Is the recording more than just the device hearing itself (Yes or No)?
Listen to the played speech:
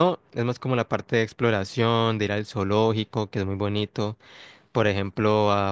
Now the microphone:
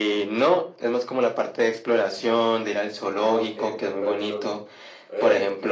Yes